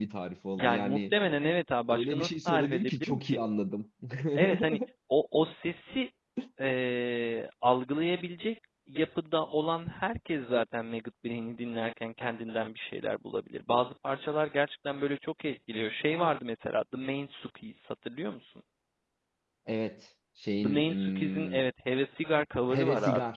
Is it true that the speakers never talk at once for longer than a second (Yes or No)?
No